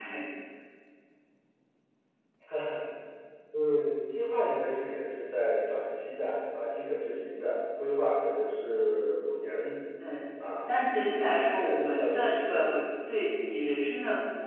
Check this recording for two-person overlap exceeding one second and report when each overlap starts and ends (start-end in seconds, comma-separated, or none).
11.4-12.8